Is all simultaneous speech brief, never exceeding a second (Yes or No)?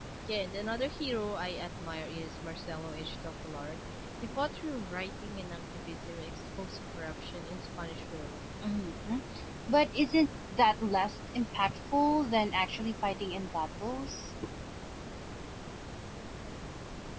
Yes